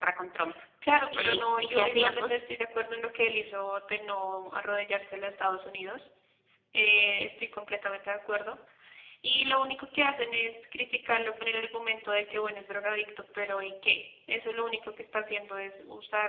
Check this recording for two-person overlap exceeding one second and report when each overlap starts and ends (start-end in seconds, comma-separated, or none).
1.1-2.4